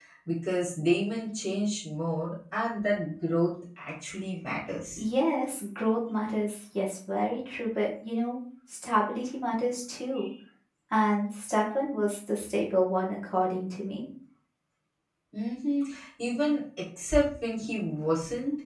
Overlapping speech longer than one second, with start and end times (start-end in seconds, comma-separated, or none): none